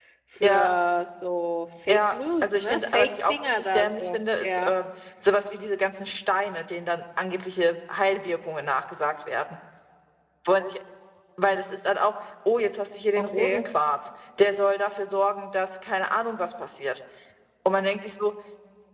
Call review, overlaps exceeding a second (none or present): present